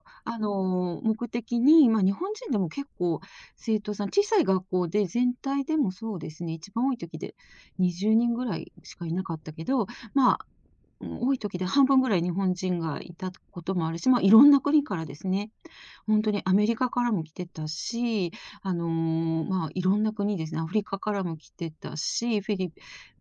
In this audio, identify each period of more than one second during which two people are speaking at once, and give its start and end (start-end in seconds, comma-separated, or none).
none